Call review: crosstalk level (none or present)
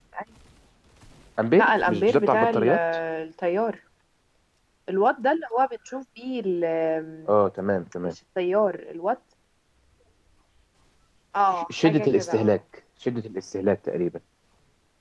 present